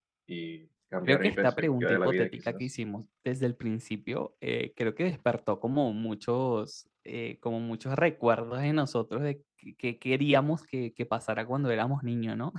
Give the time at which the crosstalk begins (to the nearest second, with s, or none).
1 s